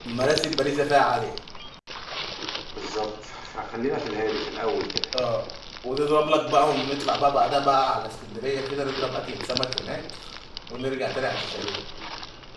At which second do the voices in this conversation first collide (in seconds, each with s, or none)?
none